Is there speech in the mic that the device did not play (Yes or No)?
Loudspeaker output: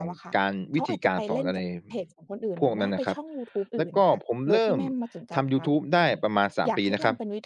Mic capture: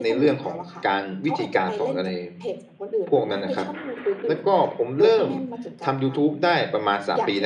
No